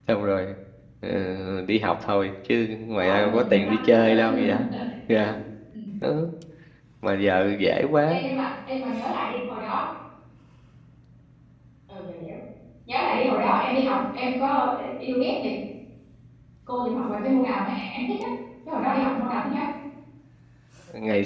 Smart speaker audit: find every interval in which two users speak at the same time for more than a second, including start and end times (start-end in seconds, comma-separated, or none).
3.0-4.5